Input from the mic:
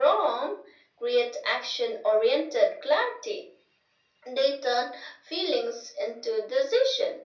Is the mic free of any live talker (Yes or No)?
Yes